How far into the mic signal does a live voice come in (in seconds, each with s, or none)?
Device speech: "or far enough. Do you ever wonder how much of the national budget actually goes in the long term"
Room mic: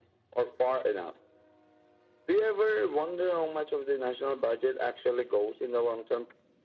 none